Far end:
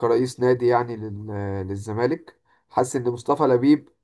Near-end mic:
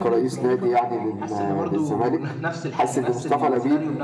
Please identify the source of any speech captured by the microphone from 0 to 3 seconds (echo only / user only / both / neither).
both